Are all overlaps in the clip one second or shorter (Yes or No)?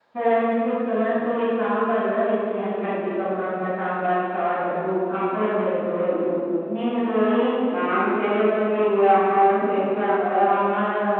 Yes